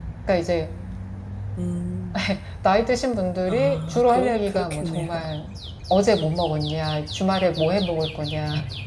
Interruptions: present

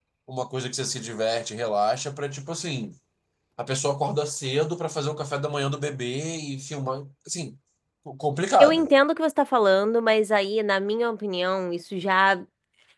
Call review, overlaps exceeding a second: none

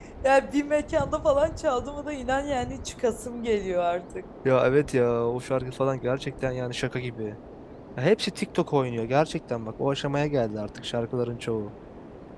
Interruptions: none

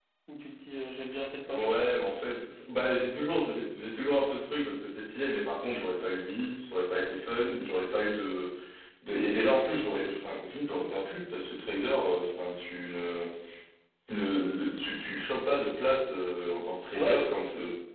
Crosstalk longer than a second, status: none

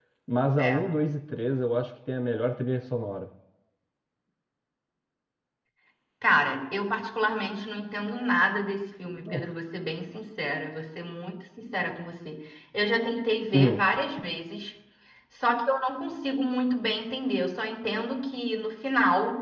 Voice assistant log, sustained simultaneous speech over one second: none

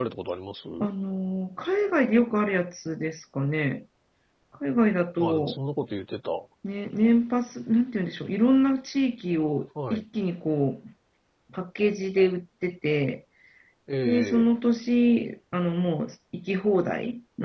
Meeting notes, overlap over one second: none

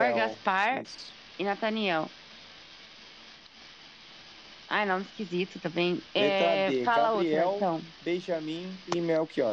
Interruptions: present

